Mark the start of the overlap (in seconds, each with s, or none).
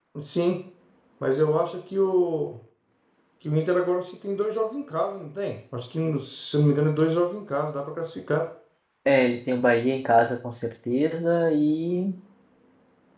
none